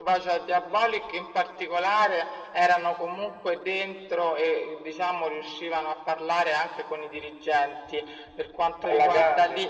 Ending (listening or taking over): listening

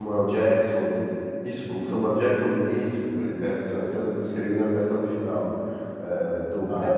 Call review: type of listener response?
listening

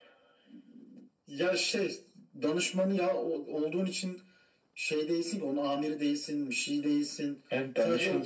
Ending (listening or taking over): taking over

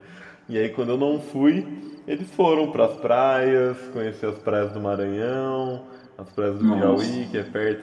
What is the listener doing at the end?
listening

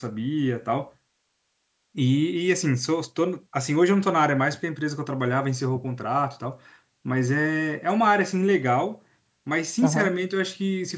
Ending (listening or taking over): listening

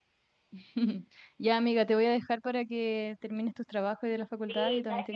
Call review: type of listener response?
taking over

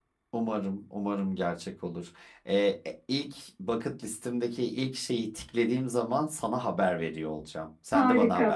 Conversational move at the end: taking over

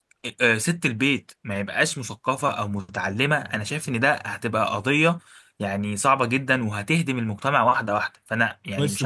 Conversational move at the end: taking over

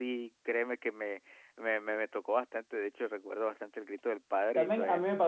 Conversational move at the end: taking over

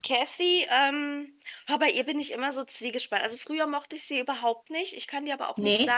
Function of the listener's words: listening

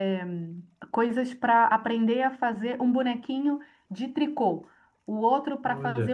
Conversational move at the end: listening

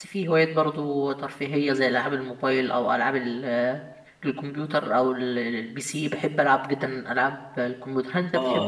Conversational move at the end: taking over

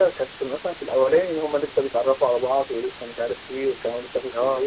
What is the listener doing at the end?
listening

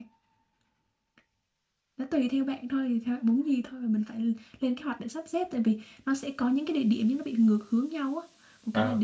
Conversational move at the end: listening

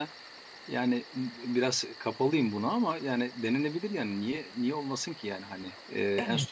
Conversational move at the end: listening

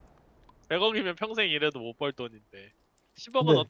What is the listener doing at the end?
listening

